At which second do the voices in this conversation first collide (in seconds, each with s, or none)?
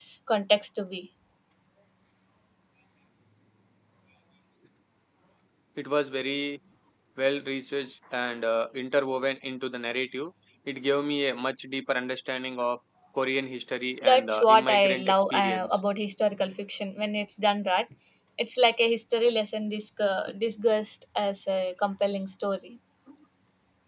14.0 s